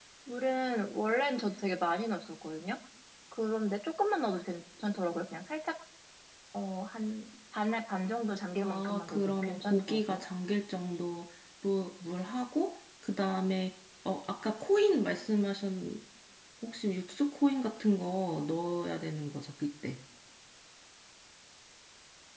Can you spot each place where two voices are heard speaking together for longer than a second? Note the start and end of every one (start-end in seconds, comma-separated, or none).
8.6-10.2